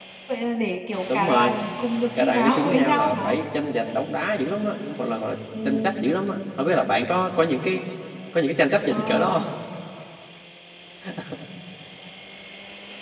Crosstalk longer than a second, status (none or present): present